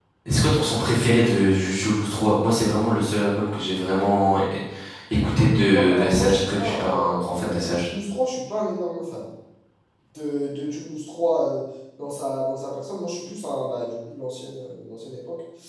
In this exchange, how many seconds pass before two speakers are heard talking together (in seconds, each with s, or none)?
5.3 s